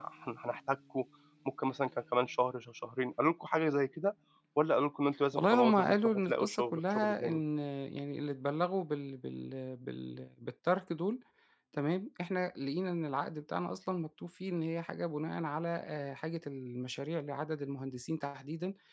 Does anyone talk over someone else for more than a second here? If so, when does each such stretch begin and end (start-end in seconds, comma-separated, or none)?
5.3-7.4